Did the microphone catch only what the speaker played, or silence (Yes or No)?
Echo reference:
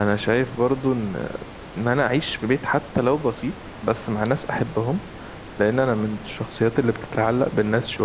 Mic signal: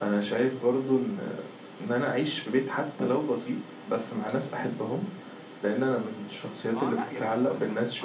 No